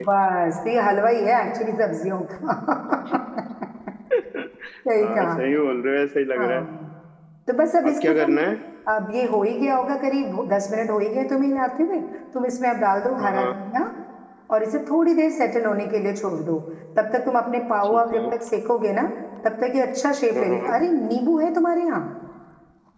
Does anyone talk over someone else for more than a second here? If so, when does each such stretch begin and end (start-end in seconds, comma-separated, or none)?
none